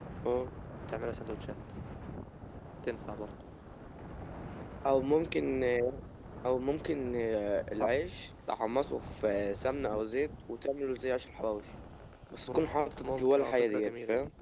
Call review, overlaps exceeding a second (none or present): present